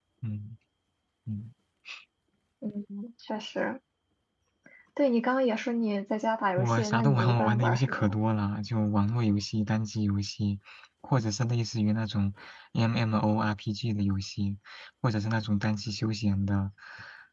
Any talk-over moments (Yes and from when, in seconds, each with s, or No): Yes, from 6.6 s